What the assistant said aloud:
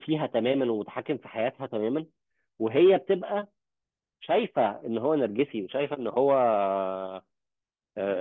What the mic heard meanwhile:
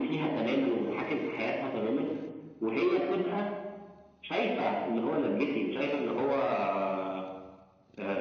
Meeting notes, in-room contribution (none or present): none